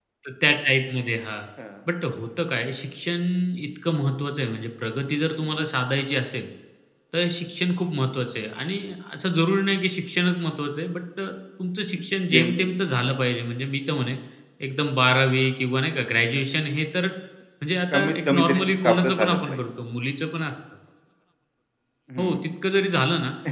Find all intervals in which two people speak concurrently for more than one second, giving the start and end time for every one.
17.9-19.6

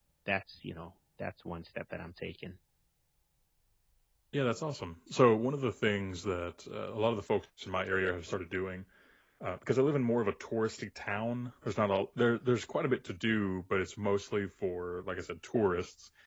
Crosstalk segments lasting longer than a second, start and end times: none

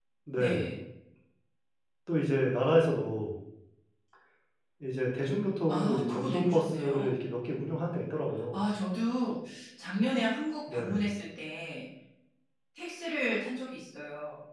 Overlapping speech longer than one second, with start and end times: 5.7-7.1

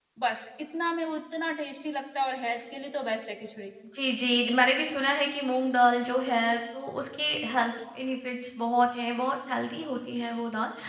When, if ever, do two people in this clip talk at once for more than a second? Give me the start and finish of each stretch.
none

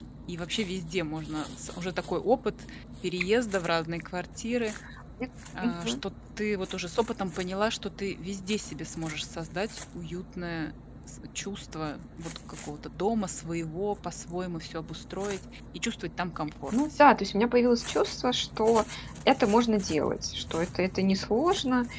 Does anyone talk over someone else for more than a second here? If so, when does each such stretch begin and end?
none

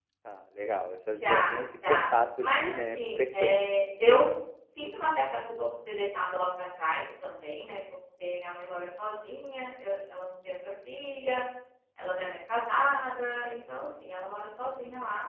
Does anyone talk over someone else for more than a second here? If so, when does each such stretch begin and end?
1.1-3.6

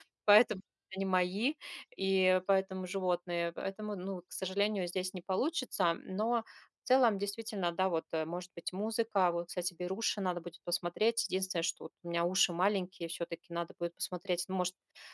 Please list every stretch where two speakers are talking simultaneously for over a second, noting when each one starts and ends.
none

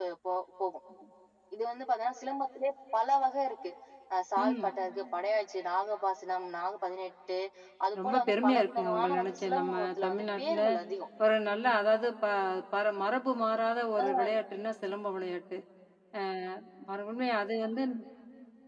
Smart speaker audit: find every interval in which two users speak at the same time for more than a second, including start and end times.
8.0-10.6

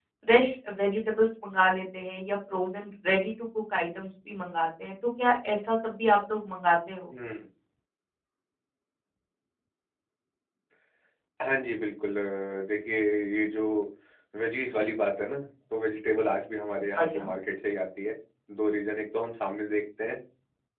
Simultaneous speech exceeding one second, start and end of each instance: none

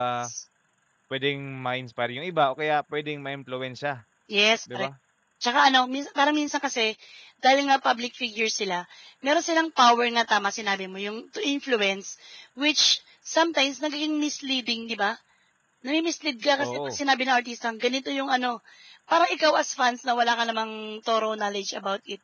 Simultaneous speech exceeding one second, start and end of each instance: none

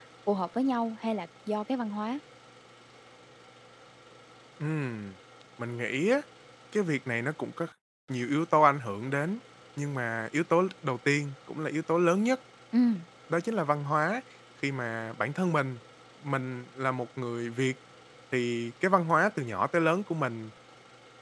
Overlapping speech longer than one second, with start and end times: none

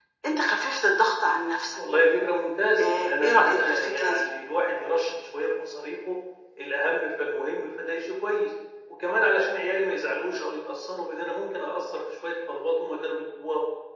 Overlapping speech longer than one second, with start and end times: 2.8-4.3

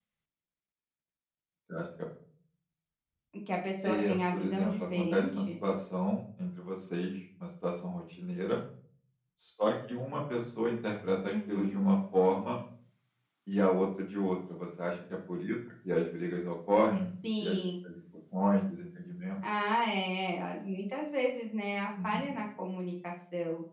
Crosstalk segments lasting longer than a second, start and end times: 3.8-5.5

